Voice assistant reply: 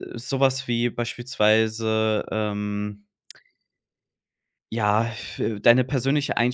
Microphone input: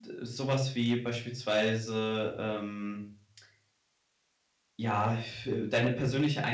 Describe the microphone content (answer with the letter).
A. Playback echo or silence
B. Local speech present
A